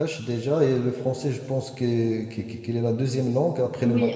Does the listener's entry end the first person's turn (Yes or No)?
Yes